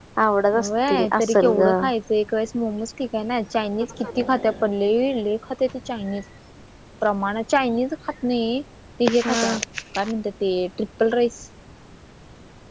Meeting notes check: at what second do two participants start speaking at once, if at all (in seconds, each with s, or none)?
0.5 s